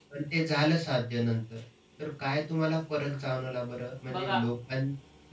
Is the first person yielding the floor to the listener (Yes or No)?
No